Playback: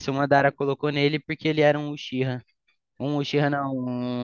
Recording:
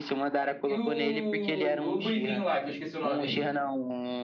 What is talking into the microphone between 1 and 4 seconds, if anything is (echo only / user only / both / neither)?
both